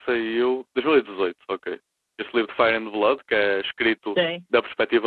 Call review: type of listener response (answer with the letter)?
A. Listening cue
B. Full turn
A